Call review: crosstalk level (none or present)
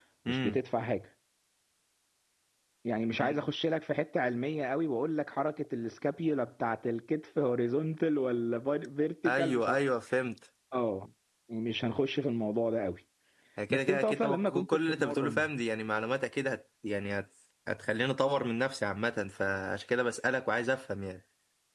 present